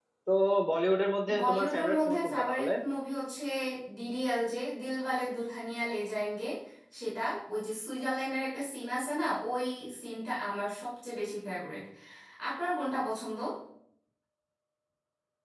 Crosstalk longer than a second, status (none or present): present